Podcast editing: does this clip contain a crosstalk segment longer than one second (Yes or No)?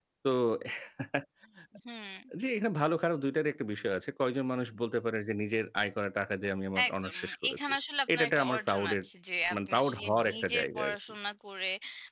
Yes